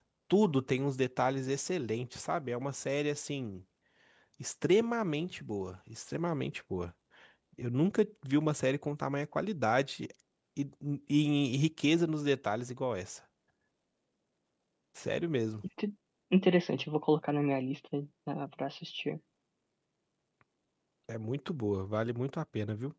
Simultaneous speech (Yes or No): No